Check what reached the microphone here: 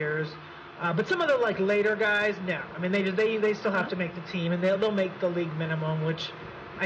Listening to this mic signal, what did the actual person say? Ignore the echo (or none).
Uh-huh.